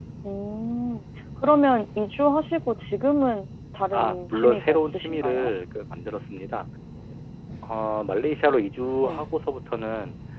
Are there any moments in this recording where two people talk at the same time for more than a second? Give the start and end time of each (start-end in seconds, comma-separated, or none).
3.9-5.5